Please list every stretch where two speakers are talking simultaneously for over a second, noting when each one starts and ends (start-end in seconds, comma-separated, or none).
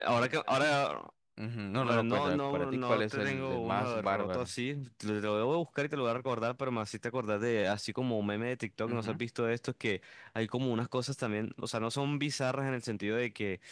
1.8-4.5